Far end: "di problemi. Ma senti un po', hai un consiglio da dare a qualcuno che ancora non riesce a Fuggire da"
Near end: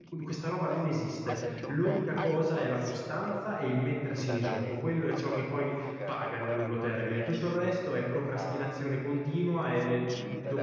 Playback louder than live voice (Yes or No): No